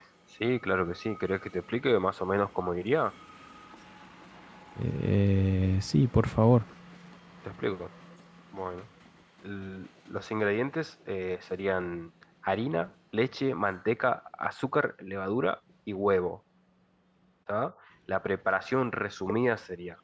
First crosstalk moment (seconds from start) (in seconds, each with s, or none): none